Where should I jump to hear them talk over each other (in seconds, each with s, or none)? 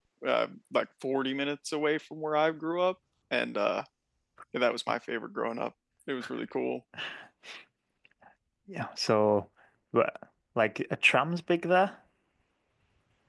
none